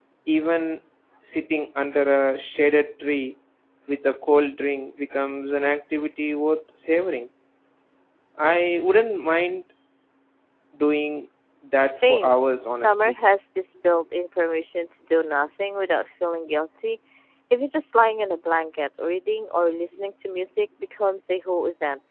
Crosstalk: present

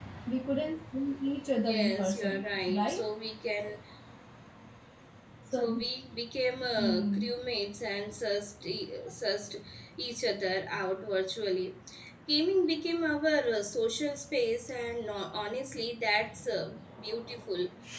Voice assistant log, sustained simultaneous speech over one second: present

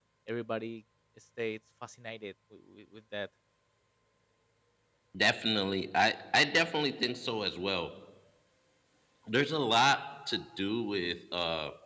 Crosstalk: none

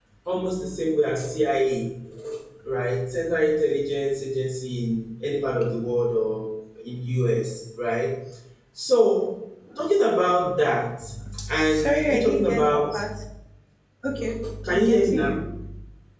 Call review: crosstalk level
present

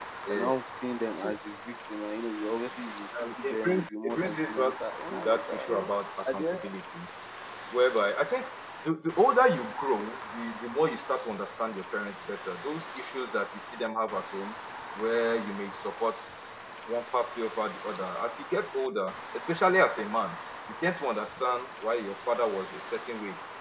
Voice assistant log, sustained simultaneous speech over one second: present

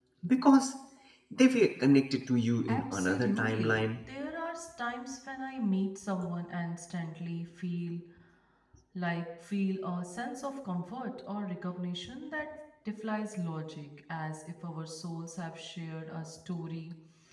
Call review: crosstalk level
present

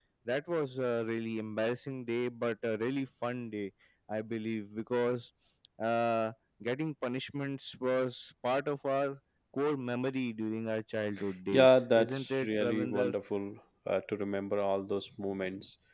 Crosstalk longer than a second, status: present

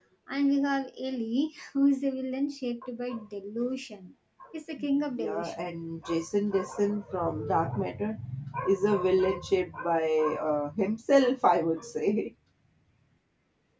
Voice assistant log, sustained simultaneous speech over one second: none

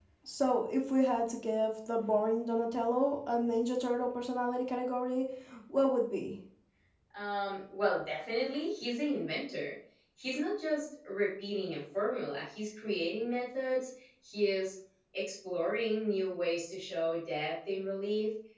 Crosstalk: none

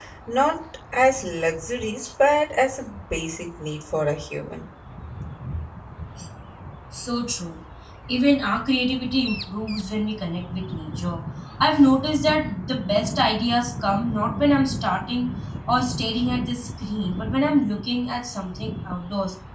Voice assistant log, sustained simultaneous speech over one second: none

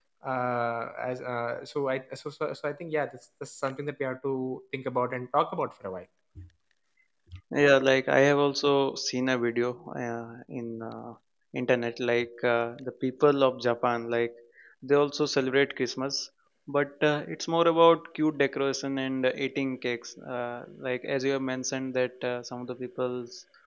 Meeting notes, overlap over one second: none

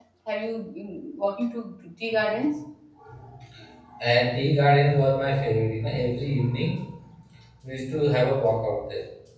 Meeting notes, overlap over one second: none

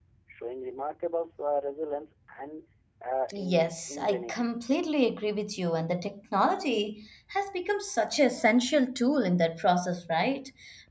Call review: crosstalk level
present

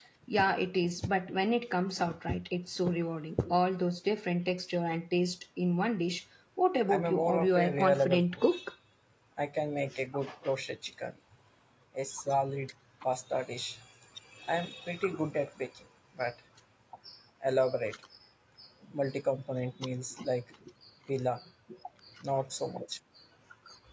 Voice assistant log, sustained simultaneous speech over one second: present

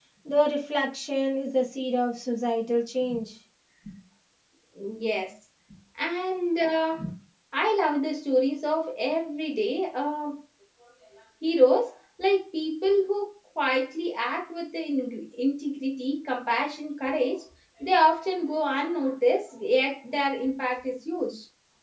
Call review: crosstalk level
none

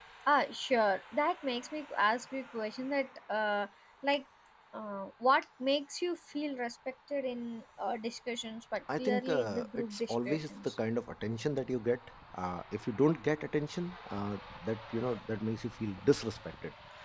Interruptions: present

